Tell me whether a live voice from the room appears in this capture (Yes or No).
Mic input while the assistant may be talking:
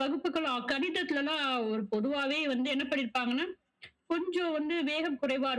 No